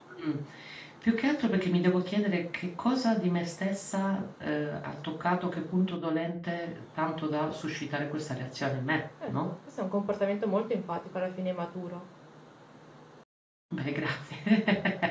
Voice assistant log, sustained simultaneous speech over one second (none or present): none